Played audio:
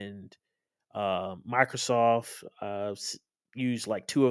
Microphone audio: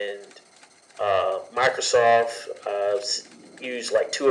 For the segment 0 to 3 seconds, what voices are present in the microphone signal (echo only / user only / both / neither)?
echo only